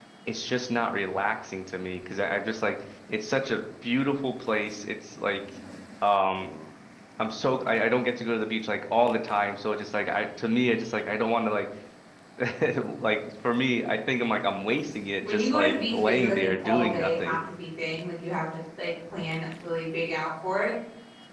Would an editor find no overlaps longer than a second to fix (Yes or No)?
No